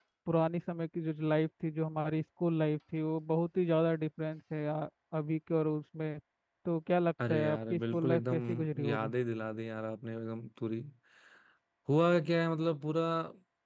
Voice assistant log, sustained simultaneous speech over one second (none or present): present